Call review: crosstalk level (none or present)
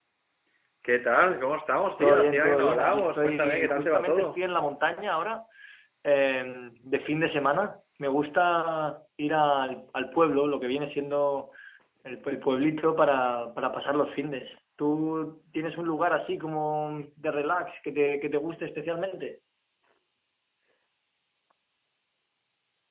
present